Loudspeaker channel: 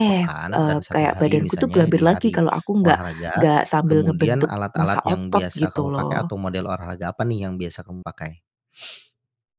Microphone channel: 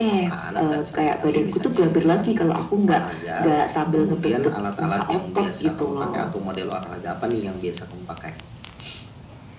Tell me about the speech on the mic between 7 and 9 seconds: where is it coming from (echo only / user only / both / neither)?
echo only